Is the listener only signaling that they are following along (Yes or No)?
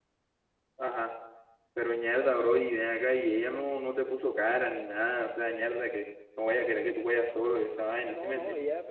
No